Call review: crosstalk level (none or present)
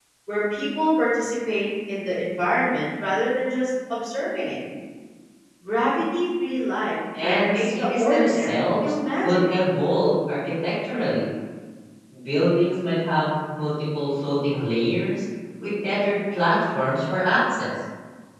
present